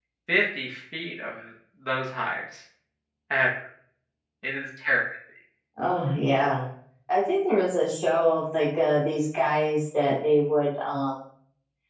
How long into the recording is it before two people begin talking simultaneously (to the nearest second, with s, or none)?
none